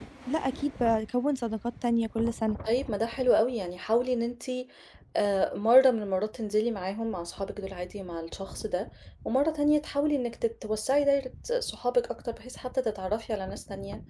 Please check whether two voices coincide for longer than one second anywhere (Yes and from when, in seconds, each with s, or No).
No